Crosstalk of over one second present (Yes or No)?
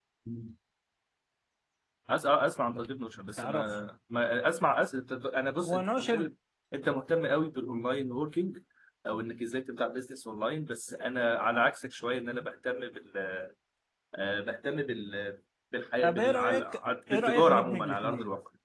Yes